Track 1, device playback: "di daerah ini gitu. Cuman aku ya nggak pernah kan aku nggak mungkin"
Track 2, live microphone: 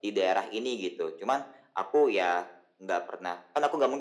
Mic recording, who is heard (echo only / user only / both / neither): echo only